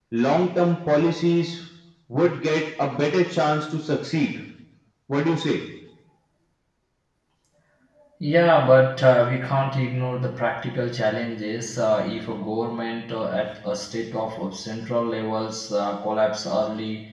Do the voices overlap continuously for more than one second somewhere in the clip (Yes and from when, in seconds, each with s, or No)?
No